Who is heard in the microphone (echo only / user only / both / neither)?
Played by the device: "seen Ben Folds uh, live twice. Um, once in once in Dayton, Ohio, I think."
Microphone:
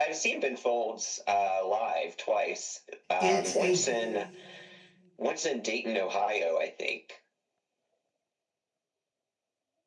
both